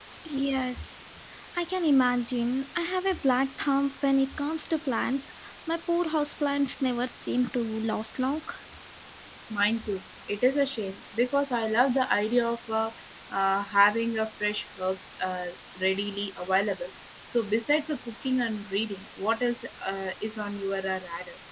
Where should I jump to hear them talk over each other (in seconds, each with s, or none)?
none